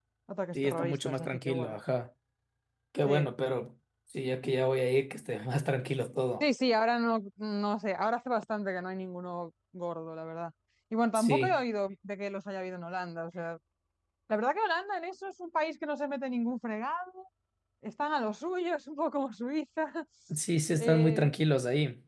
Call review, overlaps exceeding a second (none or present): present